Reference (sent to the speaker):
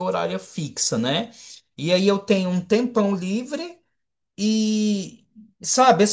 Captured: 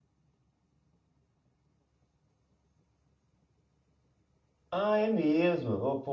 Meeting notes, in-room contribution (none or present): present